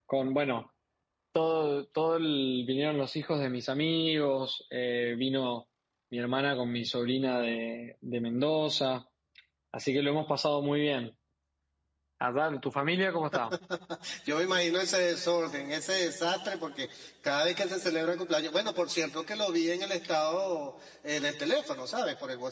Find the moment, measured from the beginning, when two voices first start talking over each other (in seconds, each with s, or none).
none